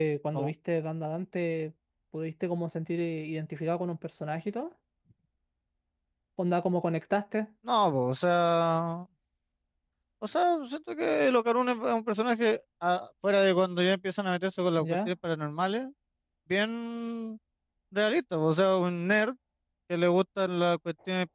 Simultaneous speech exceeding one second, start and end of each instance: none

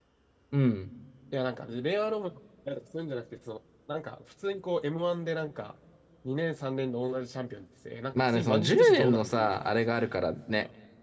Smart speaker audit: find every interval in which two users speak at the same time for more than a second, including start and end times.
8.2-9.6

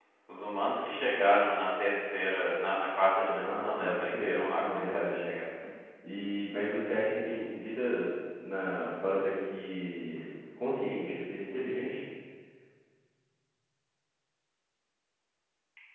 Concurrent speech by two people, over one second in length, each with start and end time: 3.3-5.3

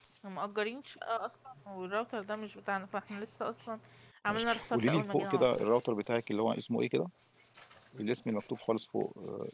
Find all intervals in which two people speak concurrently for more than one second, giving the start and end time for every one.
4.3-5.6

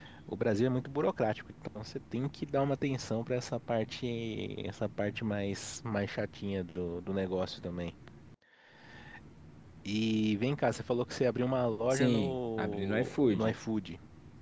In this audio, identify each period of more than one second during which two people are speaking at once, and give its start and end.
11.9-13.6

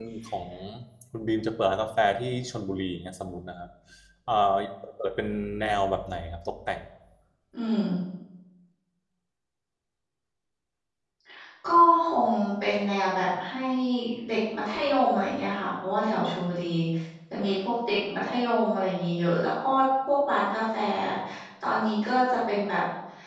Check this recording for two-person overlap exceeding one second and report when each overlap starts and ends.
none

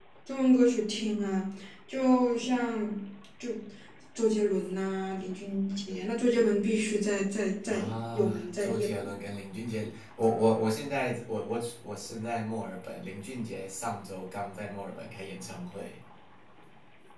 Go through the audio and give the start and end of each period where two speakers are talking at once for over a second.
7.7-9.0

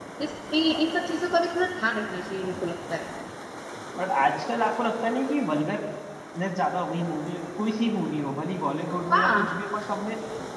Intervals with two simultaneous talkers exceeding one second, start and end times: none

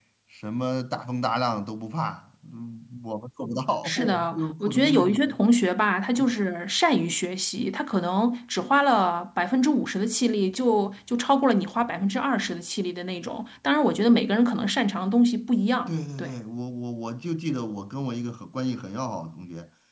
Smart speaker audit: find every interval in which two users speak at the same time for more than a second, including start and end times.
3.8-5.4

